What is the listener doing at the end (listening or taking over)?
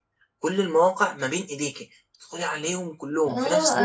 taking over